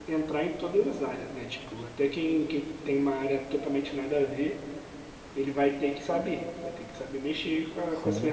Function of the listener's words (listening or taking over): taking over